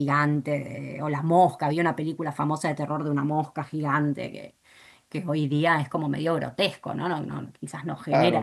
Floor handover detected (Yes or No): Yes